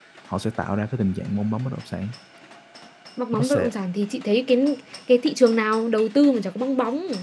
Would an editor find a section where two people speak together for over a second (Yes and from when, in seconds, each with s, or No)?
No